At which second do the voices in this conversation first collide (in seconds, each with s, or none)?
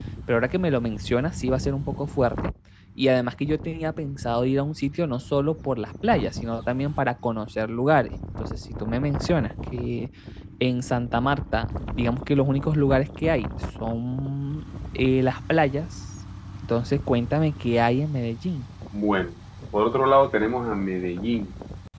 none